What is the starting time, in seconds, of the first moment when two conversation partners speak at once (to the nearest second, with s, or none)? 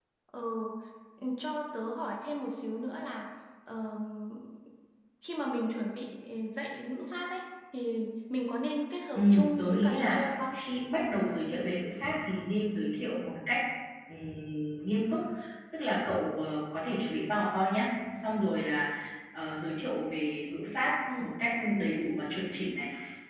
9 s